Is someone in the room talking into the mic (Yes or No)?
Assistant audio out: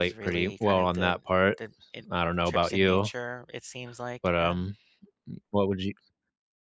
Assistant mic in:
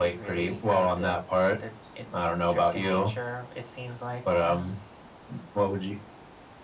No